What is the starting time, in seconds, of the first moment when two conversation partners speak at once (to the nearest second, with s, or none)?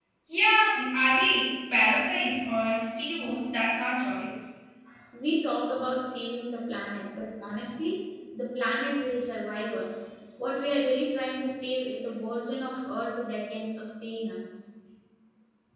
none